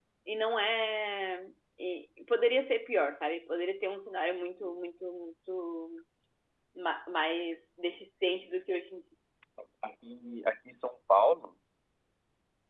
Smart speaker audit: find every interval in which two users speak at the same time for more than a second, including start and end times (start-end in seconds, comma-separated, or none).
none